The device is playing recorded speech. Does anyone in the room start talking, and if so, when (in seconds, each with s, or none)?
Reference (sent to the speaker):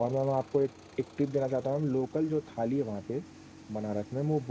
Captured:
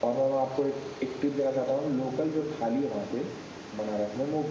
none